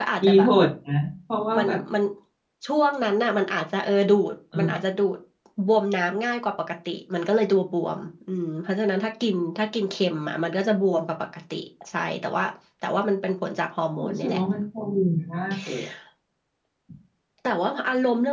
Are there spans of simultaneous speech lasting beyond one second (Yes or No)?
No